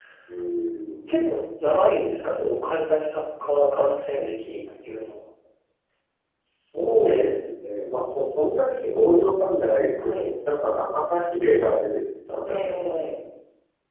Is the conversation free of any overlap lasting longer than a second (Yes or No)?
Yes